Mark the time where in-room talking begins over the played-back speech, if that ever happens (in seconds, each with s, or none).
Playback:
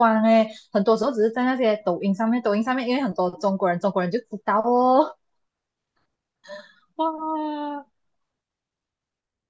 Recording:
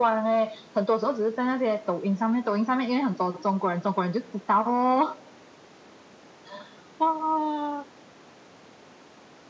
none